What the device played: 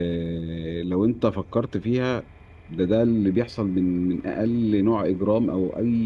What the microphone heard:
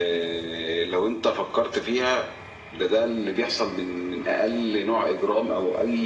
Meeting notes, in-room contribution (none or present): none